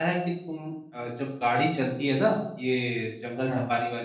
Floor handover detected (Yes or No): No